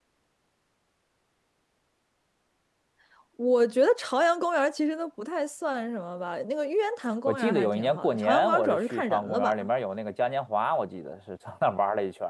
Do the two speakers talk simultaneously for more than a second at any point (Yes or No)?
Yes